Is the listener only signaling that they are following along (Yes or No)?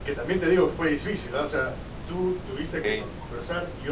Yes